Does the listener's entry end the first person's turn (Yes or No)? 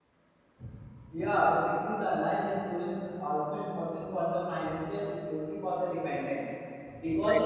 No